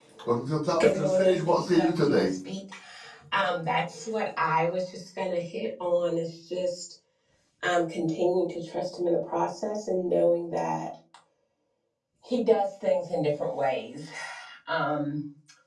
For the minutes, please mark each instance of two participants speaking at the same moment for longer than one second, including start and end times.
0.8-2.3

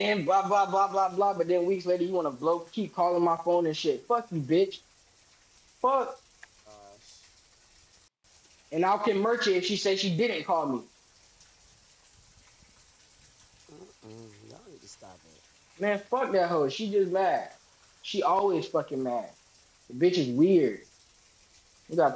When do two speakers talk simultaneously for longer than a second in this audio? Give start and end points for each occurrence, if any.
none

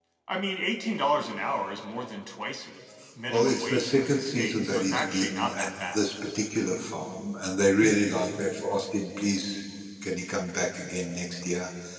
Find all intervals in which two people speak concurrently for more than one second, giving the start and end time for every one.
3.3-6.0

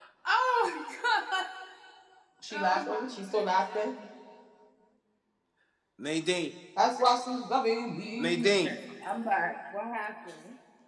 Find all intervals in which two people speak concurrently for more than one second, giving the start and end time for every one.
2.5-3.9

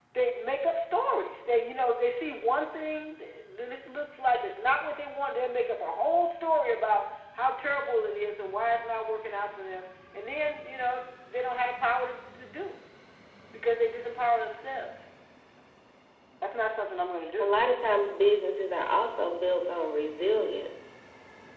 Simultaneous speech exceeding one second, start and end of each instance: none

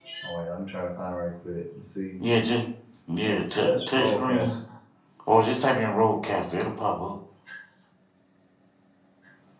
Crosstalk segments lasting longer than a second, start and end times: 3.2-4.6

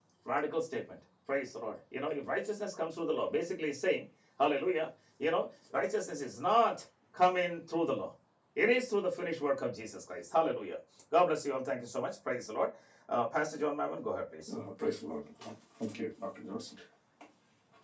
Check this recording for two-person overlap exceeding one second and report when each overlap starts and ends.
none

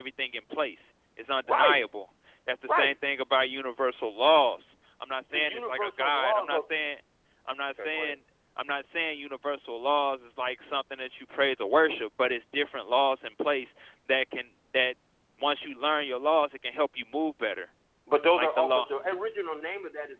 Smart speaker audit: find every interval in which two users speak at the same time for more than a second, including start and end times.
5.3-6.6

